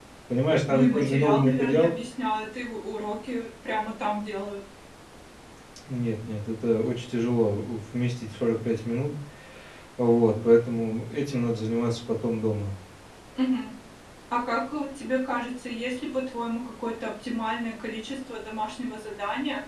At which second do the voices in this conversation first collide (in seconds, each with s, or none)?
0.7 s